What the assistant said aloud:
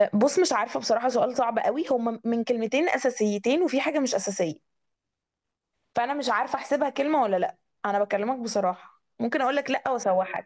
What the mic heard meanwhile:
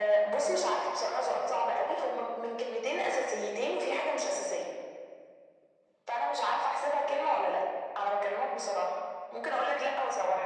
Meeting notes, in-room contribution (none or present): none